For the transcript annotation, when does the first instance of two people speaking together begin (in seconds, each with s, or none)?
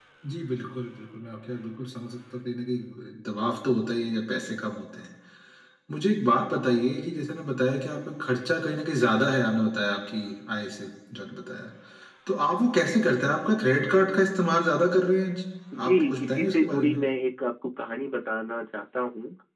15.7 s